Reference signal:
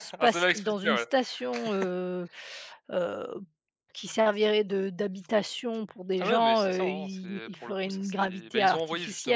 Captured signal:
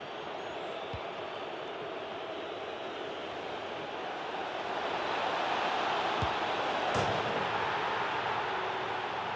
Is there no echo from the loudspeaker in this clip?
Yes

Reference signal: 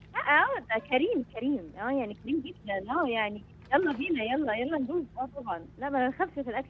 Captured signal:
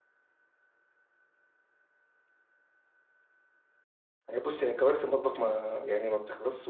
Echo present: No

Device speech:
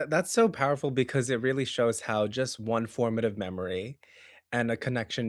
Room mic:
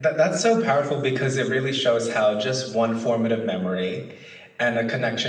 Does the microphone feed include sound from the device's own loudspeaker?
Yes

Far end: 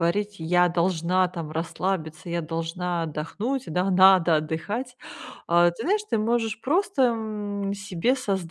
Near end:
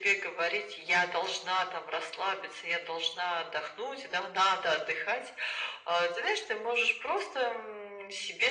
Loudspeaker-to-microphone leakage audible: Yes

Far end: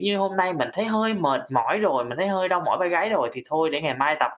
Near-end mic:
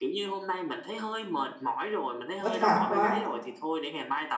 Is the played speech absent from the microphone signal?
No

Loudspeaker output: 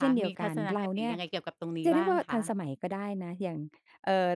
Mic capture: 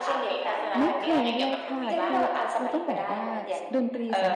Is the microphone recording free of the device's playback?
No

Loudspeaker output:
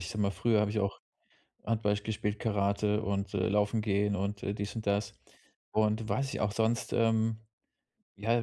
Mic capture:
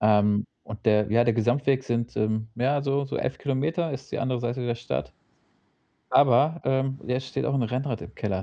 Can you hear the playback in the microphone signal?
No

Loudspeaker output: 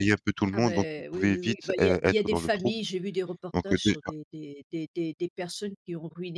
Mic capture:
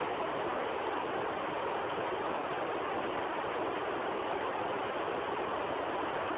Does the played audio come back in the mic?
No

